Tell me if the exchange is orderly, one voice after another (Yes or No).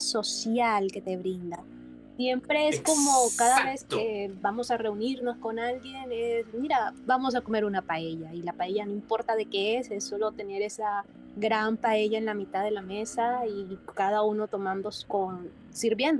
No